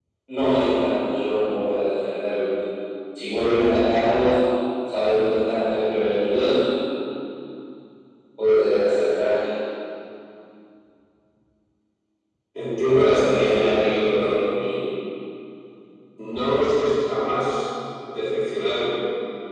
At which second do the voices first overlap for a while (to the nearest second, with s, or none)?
13 s